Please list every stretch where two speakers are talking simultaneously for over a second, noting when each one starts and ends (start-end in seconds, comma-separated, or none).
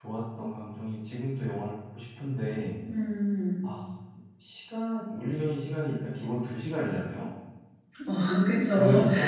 none